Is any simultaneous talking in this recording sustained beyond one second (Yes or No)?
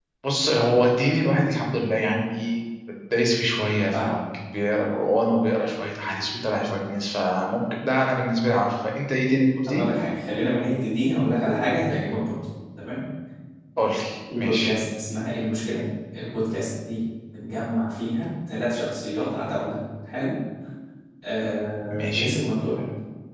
No